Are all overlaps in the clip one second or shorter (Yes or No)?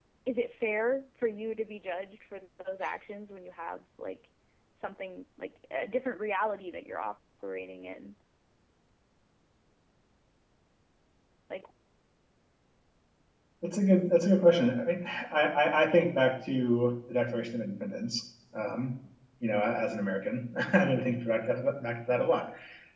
Yes